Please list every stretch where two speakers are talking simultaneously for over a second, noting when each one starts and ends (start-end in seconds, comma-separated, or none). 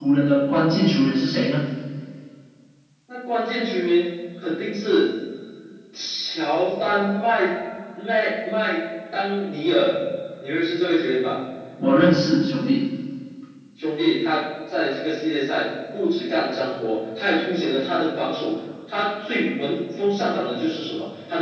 none